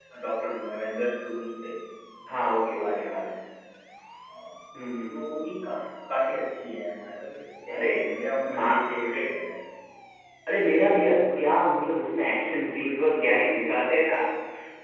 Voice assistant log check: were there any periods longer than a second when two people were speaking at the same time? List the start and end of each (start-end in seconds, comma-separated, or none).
none